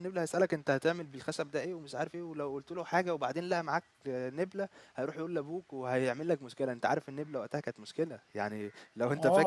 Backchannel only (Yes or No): No